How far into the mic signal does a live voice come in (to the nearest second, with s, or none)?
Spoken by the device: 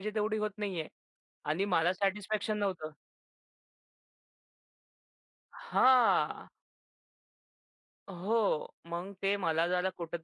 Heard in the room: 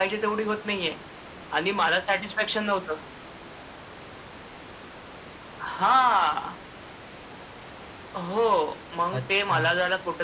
9 s